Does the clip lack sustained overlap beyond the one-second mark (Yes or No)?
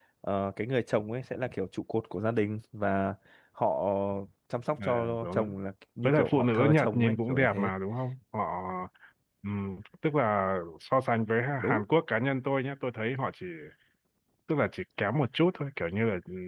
No